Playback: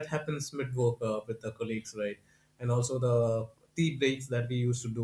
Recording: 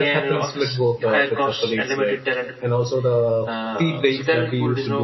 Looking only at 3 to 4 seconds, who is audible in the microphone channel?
both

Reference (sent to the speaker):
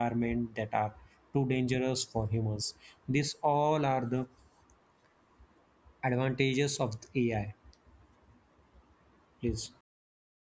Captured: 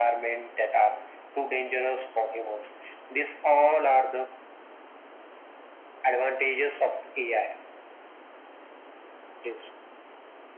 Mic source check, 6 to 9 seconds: echo only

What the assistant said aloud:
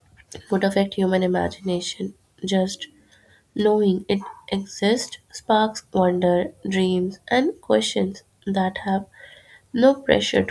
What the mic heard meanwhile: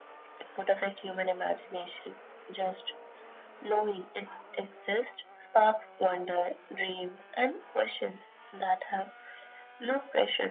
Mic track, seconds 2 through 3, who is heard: echo only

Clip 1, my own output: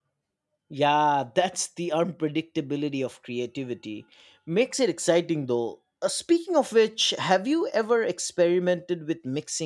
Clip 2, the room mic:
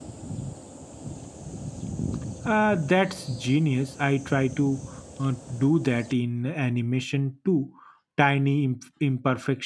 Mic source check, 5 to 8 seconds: user only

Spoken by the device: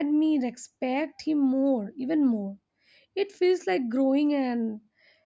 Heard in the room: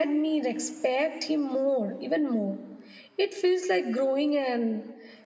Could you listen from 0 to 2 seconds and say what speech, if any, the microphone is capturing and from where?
echo only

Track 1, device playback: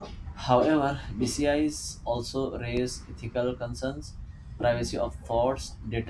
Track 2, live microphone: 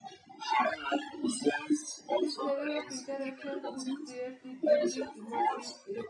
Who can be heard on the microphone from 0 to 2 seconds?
echo only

